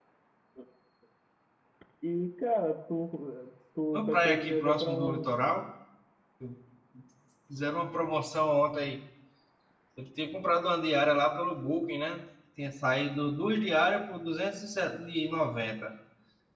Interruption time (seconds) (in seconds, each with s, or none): 3.9 s